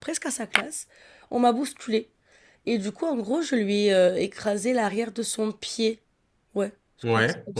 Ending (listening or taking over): listening